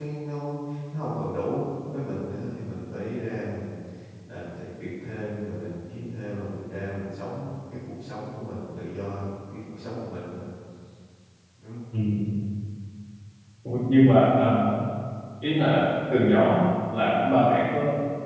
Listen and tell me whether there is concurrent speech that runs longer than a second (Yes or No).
No